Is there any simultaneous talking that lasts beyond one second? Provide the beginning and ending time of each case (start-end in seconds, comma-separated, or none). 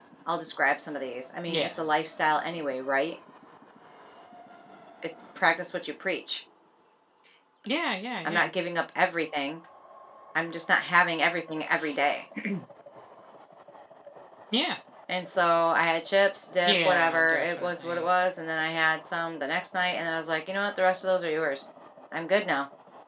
16.6-18.0